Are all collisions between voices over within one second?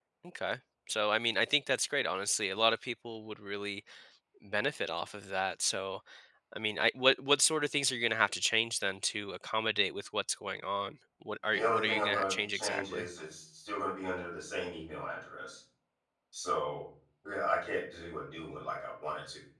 No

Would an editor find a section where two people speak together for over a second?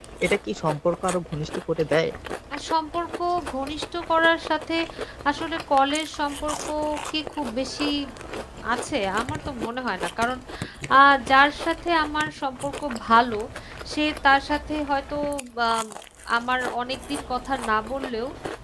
No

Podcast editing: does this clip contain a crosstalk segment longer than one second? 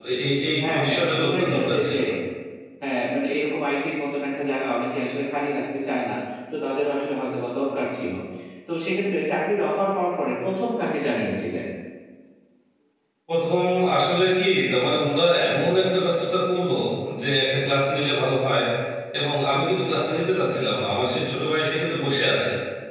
Yes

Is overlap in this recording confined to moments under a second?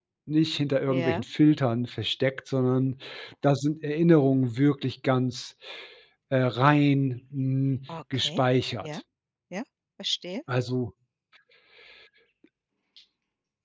Yes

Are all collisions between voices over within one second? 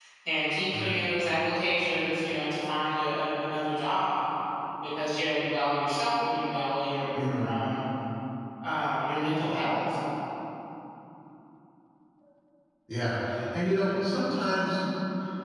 Yes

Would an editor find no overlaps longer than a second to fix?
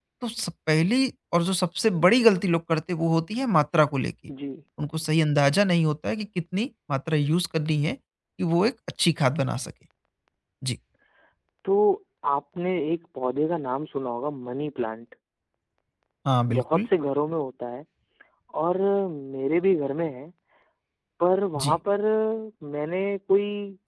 Yes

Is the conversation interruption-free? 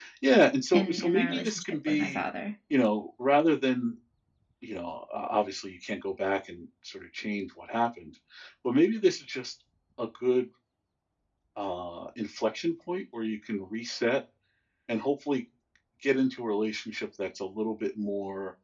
No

